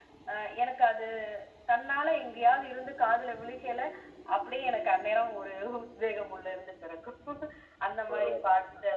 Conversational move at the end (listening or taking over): listening